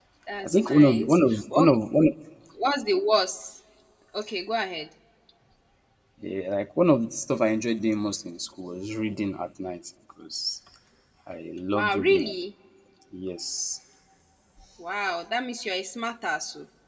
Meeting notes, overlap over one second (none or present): present